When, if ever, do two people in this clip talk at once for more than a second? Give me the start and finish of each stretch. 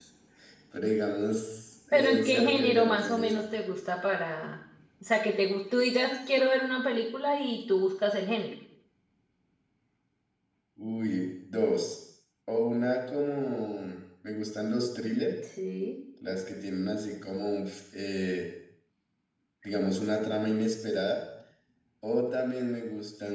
1.9-3.3

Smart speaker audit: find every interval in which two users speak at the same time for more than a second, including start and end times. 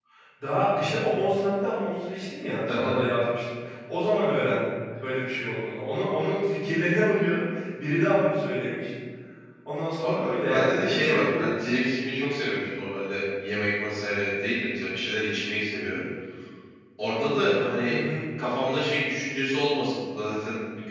10.0-11.4

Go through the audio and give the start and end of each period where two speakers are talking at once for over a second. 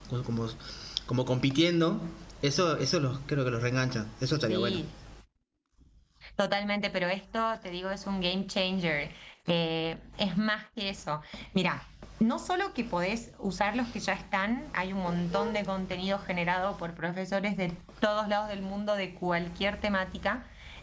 none

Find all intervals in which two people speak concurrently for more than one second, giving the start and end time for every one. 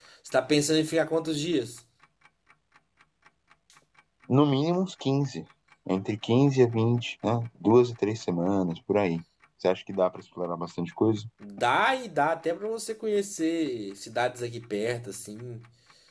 none

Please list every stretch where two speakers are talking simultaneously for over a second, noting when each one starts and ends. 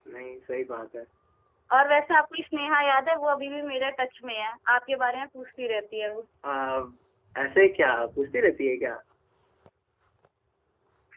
none

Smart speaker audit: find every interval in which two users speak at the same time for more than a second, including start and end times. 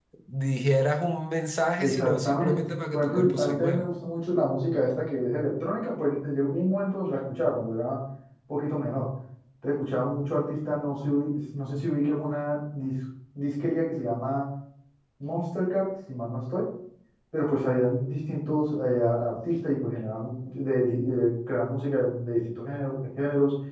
1.8-3.9

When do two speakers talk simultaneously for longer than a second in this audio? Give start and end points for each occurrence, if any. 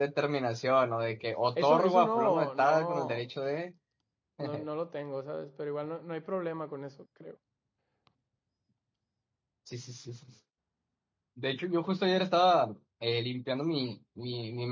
1.6-3.2

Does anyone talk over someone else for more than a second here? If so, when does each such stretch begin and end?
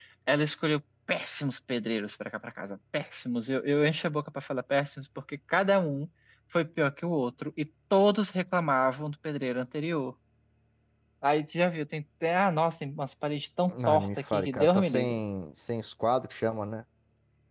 13.7-15.2

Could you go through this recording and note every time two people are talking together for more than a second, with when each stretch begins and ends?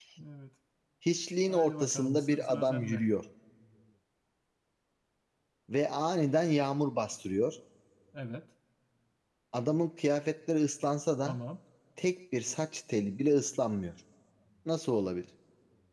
1.5-3.1

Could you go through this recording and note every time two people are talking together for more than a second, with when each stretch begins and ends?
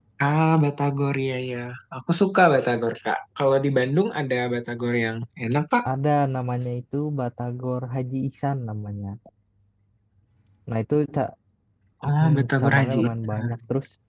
12.2-13.6

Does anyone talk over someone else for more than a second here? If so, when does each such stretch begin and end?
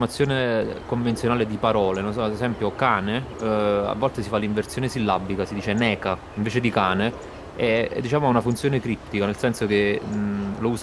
none

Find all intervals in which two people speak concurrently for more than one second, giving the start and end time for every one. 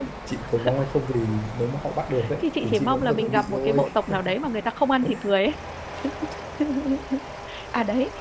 2.4-3.8

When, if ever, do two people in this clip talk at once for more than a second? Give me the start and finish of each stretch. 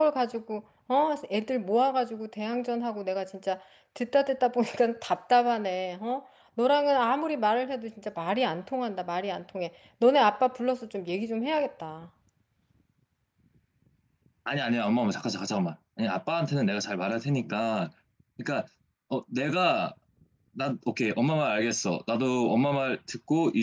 none

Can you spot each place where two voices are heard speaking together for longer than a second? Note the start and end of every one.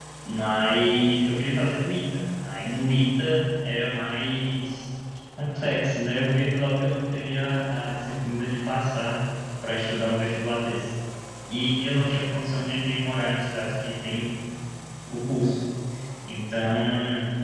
none

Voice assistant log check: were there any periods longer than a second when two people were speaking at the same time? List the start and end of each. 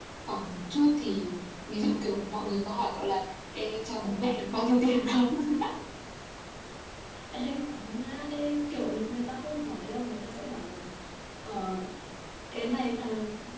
none

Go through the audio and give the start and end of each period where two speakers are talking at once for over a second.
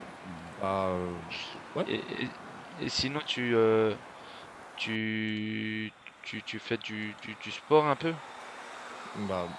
none

